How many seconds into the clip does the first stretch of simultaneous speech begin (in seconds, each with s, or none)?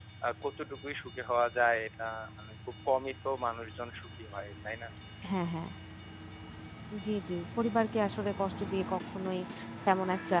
none